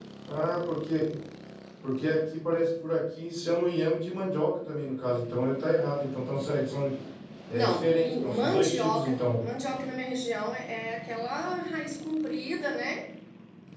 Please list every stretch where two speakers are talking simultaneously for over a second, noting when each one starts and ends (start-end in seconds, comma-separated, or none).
7.5-9.2